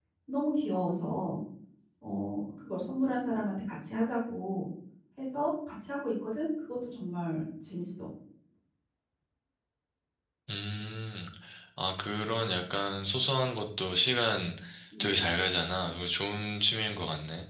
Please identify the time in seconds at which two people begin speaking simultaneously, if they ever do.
none

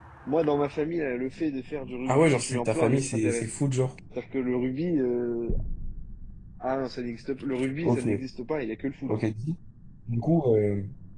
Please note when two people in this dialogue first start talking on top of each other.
2.1 s

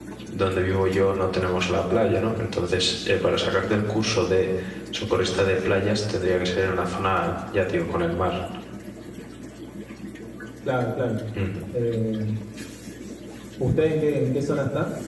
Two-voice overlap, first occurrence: none

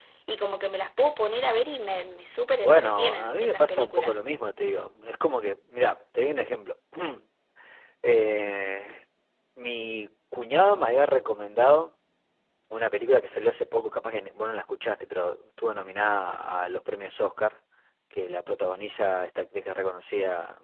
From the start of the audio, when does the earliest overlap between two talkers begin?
2.6 s

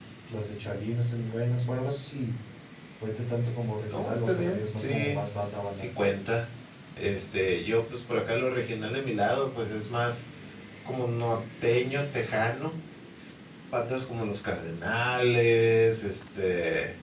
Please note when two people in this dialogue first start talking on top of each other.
3.9 s

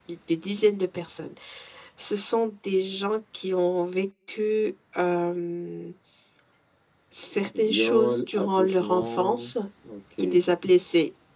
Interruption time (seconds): 7.6 s

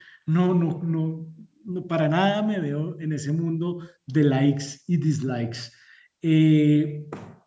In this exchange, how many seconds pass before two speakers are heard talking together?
none

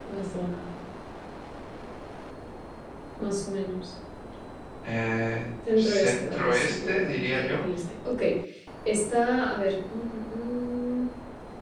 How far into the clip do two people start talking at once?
5.6 s

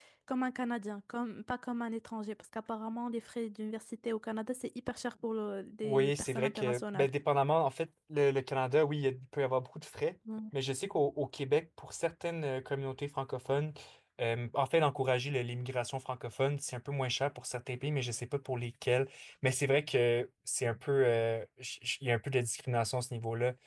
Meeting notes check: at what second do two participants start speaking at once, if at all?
5.8 s

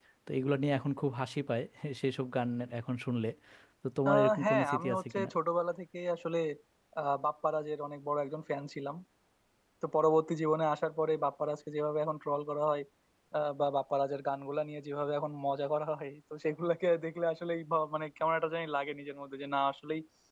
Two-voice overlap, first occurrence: 4.1 s

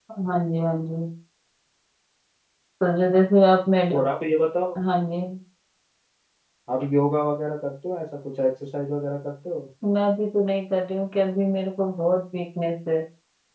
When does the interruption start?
none

